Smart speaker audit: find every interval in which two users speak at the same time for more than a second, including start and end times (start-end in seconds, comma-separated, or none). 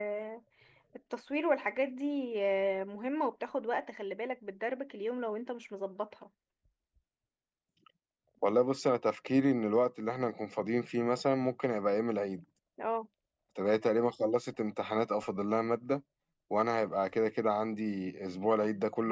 none